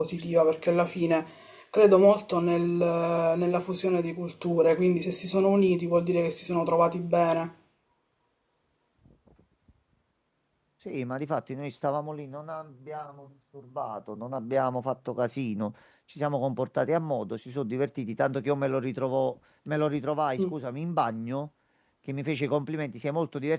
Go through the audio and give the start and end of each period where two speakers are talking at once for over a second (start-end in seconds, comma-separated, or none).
none